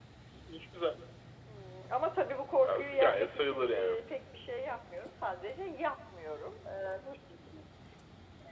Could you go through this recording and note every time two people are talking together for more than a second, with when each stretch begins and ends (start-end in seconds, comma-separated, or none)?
2.6-4.0